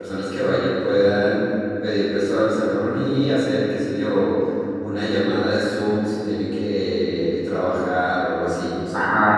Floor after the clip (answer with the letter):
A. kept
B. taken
B